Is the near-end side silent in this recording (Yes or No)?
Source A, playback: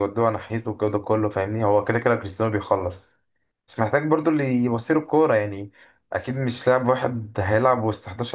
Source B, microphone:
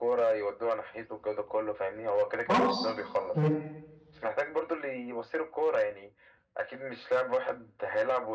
No